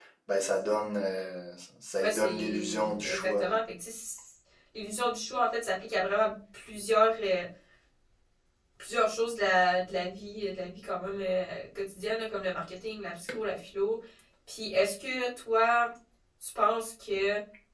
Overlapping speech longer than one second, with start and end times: 2.0-3.5

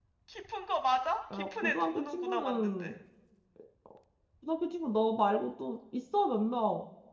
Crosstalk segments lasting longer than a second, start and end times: 1.3-2.9

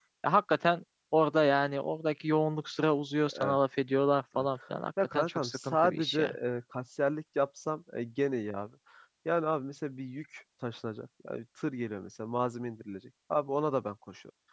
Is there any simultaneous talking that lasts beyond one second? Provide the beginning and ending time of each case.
5.2-6.3

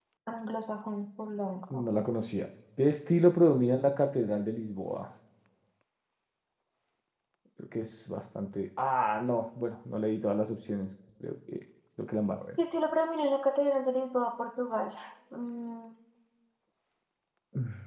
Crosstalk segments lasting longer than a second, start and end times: none

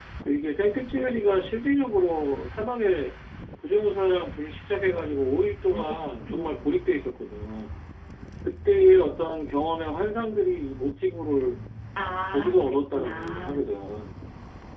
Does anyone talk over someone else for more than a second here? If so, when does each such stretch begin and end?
12.3-13.7

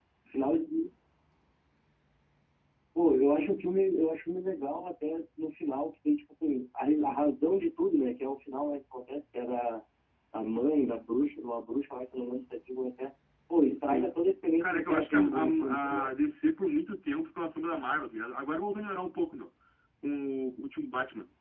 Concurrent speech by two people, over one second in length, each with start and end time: 14.6-16.1

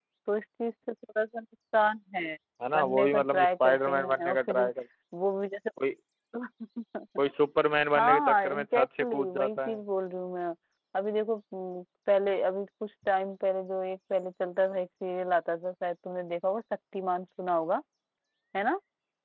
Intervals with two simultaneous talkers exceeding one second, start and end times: 2.7-4.6, 8.0-9.8

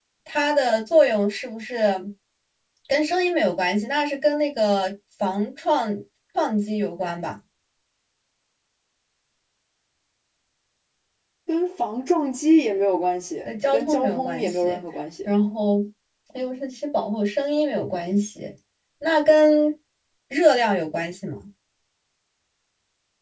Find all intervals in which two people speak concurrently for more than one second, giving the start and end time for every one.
13.4-14.8

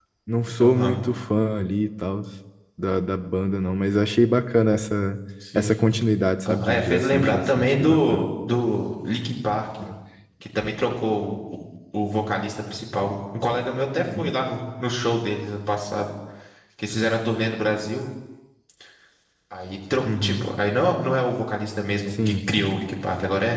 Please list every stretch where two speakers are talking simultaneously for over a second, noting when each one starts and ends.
6.5-8.3

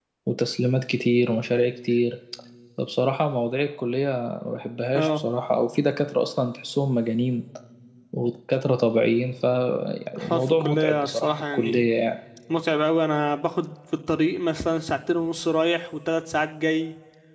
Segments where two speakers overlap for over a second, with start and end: 10.2-11.8

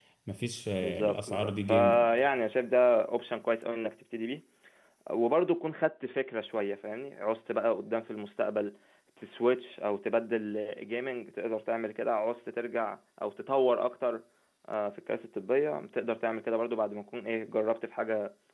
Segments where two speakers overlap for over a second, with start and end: 0.8-2.1

